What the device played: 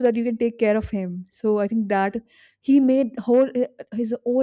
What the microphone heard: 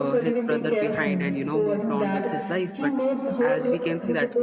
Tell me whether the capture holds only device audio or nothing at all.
No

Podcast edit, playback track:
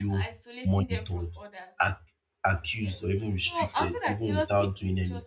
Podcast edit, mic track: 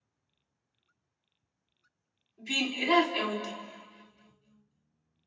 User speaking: Yes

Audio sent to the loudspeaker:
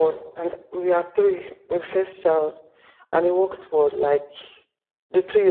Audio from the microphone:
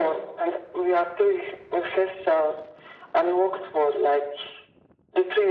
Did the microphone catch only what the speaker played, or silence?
Yes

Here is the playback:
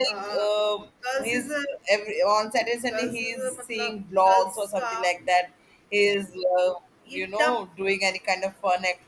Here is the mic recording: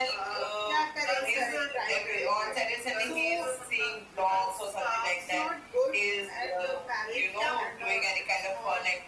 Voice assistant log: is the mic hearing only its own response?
No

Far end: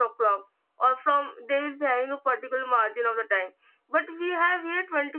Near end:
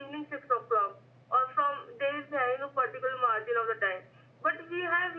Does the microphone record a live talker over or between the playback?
No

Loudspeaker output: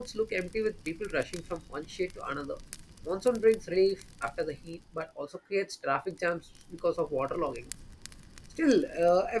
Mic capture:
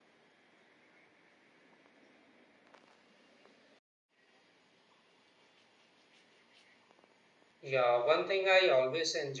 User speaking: Yes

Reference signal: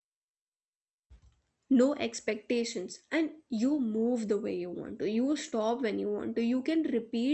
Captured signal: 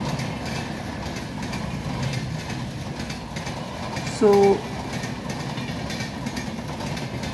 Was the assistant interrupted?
Yes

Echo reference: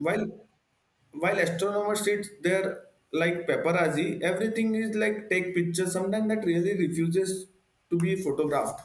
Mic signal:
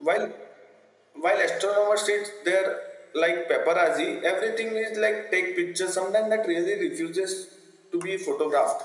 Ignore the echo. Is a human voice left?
No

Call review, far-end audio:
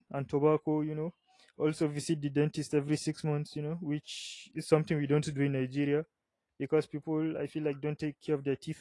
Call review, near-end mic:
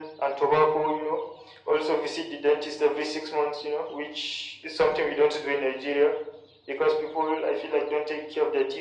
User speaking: No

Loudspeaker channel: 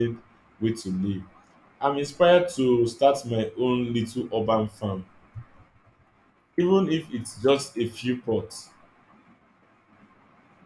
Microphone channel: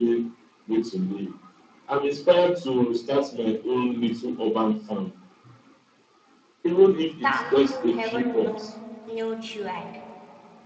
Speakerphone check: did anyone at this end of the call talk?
Yes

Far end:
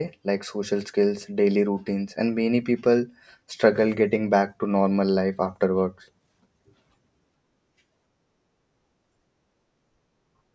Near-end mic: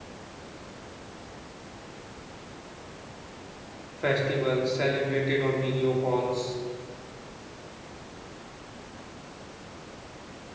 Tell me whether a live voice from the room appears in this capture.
Yes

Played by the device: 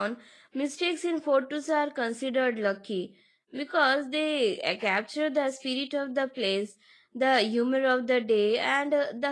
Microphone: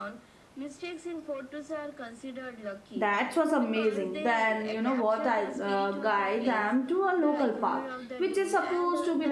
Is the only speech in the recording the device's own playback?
No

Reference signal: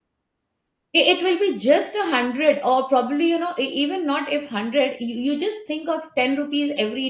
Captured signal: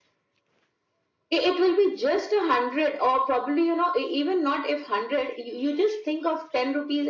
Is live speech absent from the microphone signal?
Yes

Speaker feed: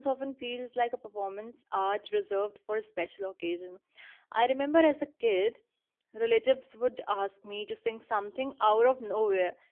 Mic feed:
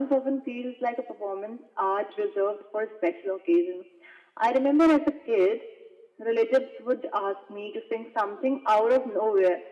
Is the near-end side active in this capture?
No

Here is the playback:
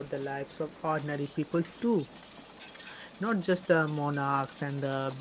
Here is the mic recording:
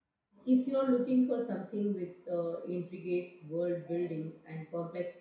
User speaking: Yes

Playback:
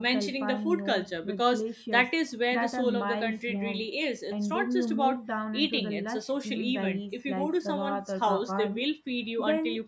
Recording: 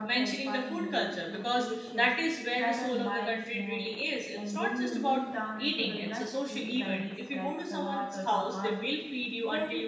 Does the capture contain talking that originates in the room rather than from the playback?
No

